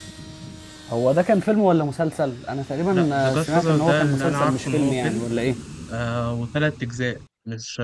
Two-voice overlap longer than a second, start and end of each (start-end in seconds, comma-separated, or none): 2.9-5.2